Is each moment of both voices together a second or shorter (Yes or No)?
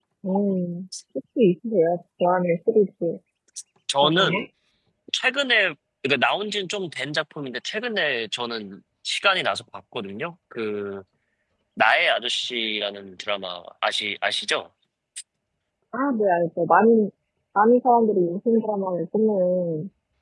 Yes